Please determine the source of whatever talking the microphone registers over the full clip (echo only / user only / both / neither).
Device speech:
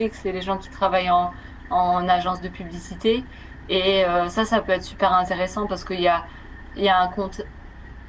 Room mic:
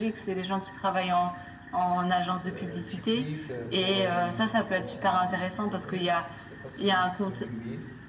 both